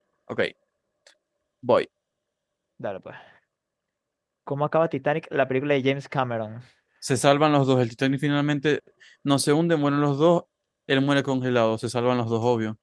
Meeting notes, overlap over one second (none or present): none